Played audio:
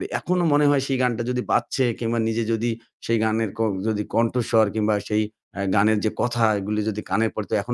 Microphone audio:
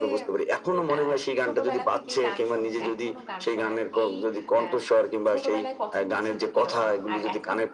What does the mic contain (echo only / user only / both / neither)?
both